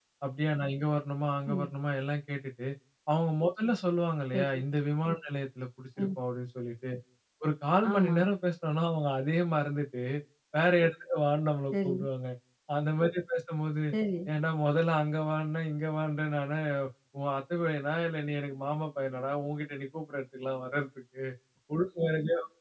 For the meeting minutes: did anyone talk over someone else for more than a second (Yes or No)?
No